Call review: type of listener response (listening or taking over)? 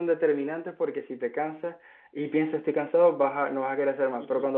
listening